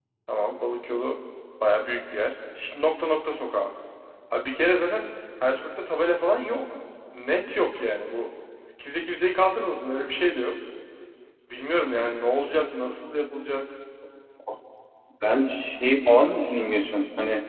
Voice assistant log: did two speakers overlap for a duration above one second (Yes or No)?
No